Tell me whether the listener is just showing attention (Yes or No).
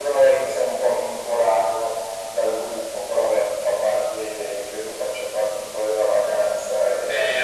No